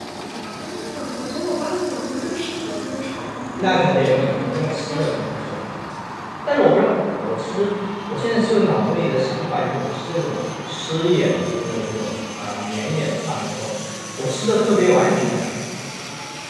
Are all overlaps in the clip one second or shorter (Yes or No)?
No